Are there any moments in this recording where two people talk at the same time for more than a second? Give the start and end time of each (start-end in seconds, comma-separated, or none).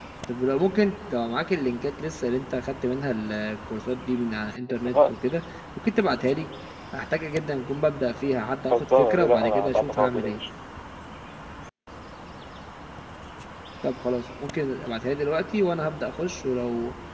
8.7-10.4